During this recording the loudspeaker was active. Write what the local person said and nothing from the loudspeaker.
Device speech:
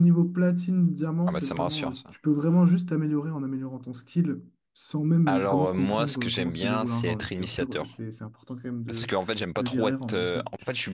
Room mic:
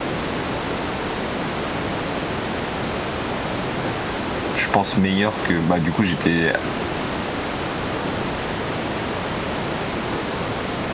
je pense, meilleur que. Bah, du coup, j'étais

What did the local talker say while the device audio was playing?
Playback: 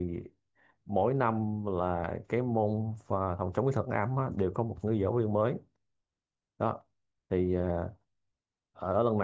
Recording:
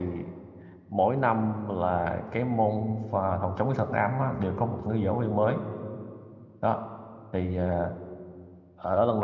none

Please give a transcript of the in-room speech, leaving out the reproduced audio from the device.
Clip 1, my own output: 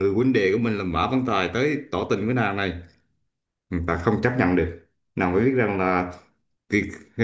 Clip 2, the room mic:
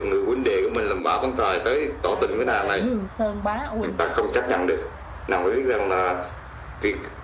Ta phải gọi là lương sơn bá huynh à.

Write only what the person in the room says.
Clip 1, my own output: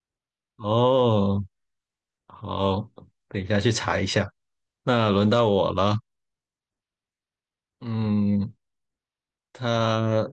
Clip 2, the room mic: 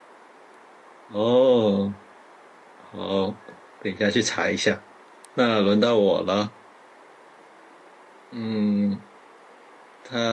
none

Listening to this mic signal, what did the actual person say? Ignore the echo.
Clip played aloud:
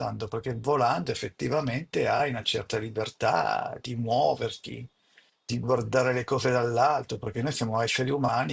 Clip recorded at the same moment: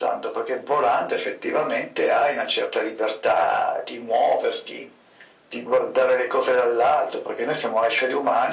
none

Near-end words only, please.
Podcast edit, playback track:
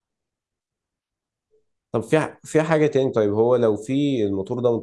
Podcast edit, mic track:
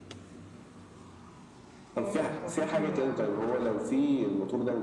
اه فممكن يعني

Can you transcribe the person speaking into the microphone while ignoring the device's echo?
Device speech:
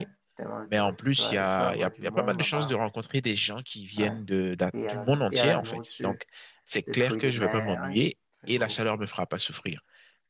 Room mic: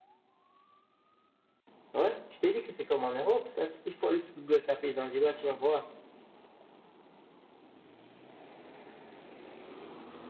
Ouais, je t'ai dit que c'est comme en Europe, ça. Tu- Il faut aller sur Google, taper Zanzibar, tu vas voir.

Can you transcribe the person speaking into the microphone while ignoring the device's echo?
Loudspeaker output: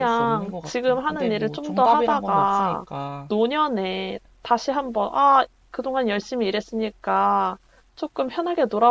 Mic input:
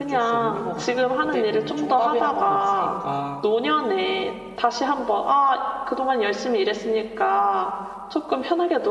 none

